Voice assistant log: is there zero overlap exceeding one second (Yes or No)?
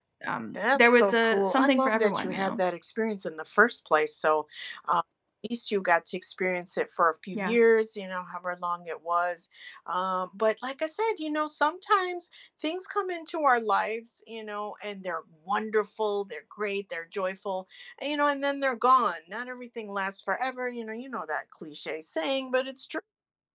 No